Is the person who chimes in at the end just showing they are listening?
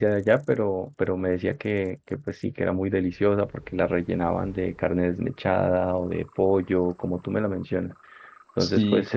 Yes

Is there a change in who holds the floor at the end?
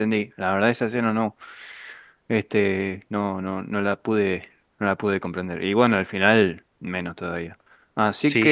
Yes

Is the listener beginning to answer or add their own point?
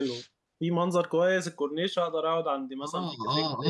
Yes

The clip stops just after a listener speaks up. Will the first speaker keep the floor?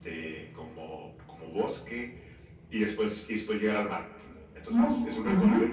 Yes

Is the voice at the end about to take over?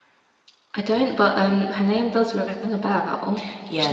Yes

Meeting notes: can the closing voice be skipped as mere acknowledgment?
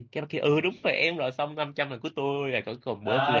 No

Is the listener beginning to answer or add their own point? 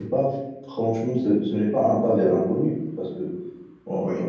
No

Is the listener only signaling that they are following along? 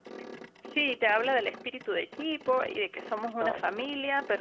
Yes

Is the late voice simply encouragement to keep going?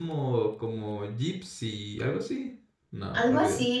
No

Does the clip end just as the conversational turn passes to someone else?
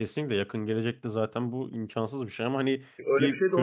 Yes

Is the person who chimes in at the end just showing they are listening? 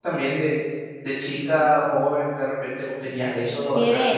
No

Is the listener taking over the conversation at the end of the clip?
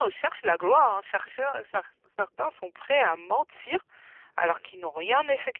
No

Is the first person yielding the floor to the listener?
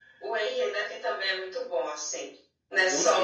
Yes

